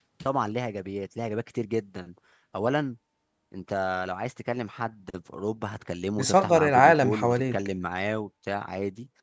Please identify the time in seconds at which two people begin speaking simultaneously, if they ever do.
6.2 s

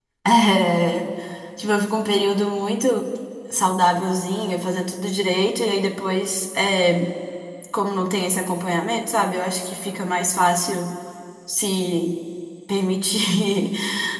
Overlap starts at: none

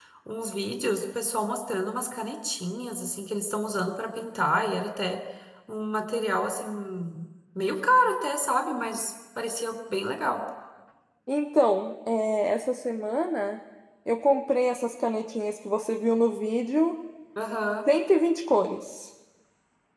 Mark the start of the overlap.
none

